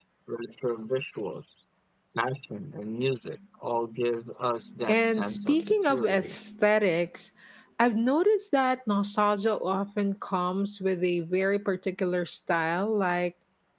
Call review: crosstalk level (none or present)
present